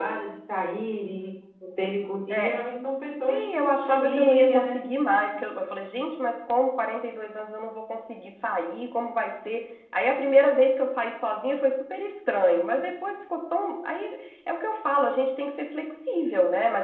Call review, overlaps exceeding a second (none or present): present